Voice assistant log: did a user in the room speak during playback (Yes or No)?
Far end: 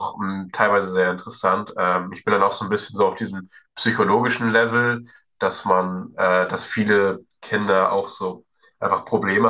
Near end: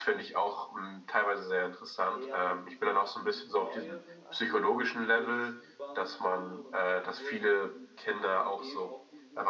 Yes